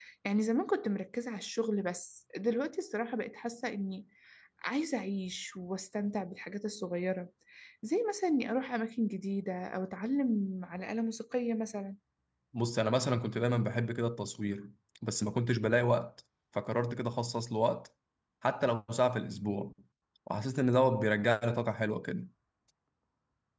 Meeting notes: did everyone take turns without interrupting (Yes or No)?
Yes